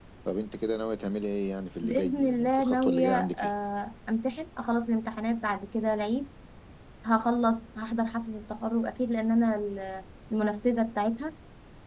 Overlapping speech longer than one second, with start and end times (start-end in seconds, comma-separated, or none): 1.8-3.5